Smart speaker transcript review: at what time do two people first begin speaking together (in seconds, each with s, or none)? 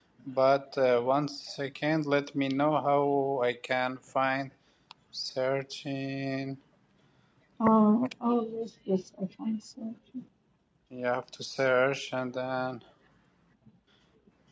none